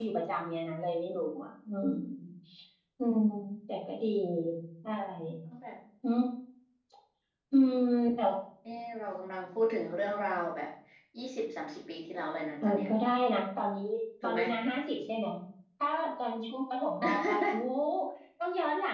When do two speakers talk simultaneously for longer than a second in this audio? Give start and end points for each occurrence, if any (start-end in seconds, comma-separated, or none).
none